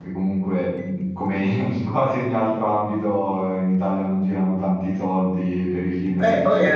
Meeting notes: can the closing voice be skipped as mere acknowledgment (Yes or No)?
No